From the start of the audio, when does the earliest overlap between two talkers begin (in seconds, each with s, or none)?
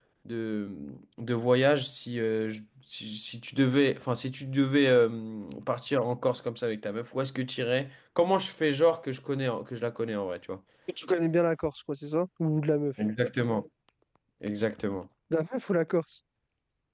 none